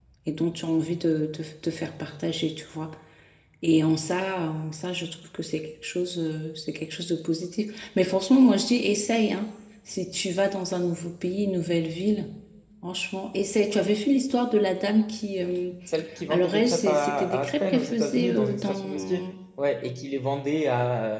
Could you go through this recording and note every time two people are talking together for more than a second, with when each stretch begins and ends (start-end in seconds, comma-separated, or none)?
16.3-19.3